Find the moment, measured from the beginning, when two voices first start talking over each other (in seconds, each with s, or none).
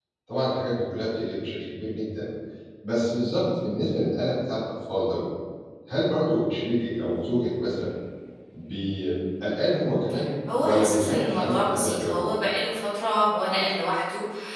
10.6 s